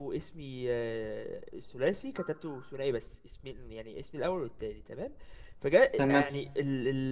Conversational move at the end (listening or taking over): listening